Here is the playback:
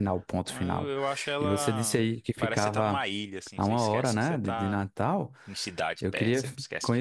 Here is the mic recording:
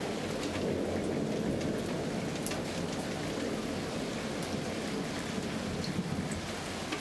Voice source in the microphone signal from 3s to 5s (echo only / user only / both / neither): neither